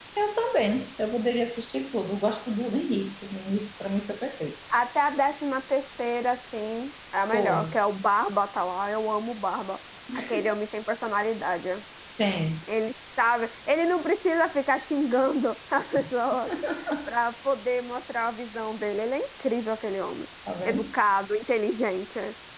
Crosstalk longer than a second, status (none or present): none